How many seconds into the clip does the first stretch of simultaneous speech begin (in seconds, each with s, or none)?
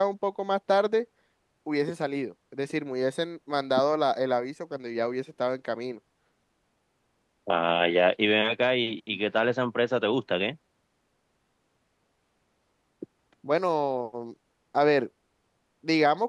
none